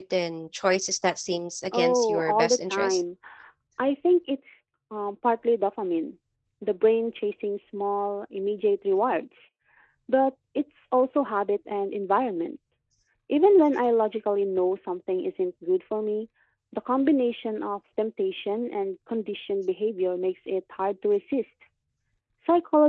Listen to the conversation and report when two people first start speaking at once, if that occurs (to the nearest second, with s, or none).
2 s